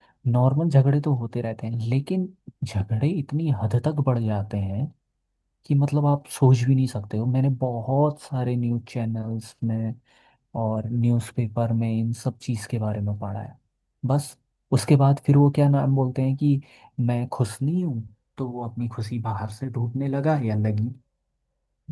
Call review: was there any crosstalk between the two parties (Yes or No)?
No